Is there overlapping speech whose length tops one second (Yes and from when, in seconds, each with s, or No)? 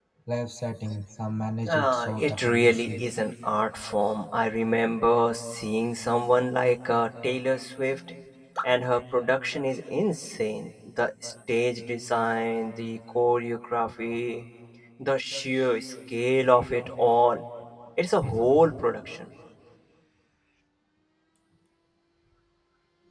Yes, from 1.7 s